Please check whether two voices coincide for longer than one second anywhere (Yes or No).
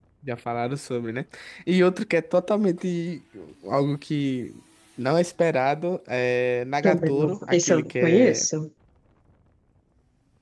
Yes